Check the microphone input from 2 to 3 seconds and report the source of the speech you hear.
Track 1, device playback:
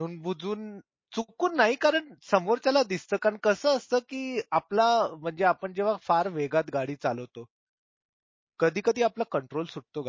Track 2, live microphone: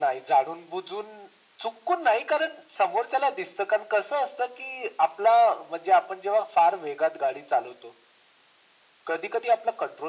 echo only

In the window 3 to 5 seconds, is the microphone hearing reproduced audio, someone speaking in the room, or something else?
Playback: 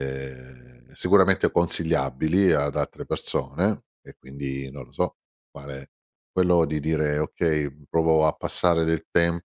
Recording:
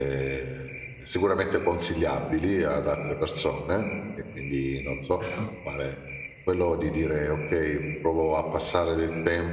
echo only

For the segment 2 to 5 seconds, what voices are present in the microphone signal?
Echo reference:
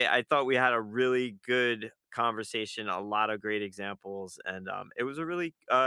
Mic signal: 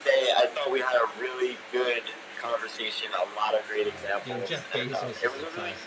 both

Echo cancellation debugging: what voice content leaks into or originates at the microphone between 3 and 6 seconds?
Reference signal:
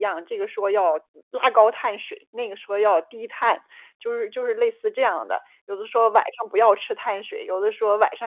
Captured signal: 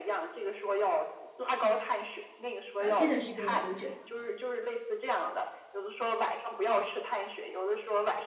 both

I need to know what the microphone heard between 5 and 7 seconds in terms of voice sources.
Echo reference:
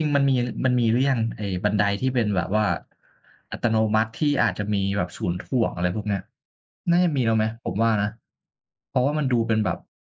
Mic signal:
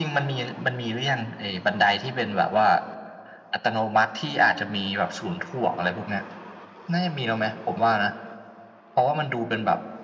echo only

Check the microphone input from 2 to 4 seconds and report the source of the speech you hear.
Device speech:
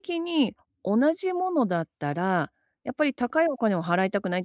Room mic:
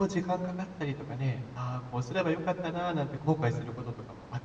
user only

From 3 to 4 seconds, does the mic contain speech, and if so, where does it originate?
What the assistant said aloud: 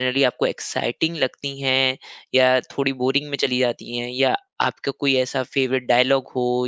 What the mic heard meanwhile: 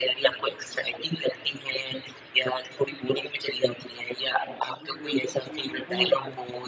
echo only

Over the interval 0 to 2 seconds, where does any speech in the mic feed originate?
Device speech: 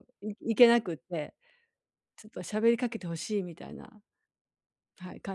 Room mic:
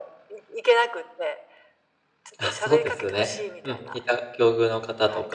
echo only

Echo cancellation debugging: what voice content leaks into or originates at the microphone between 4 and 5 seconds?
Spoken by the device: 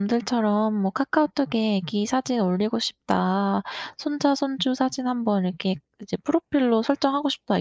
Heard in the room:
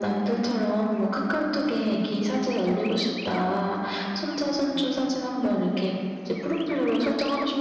echo only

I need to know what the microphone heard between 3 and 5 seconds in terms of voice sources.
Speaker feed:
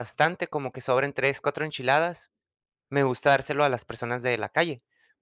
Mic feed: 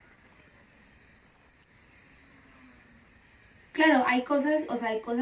user only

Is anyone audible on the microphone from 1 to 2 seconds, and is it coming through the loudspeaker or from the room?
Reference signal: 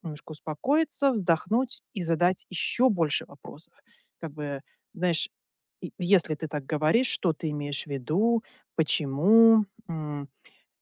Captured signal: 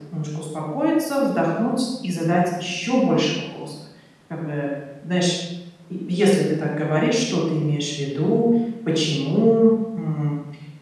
echo only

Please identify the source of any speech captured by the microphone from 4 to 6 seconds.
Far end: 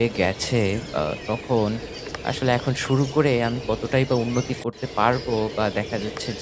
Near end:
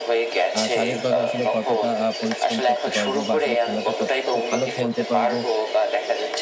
both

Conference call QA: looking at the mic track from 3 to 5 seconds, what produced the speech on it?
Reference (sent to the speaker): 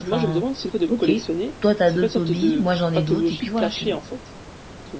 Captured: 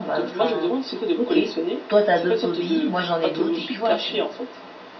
echo only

